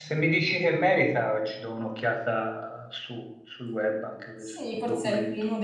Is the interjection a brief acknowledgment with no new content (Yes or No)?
No